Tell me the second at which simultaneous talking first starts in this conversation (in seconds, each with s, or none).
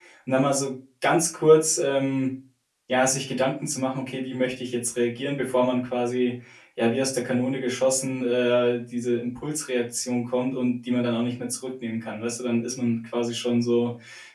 none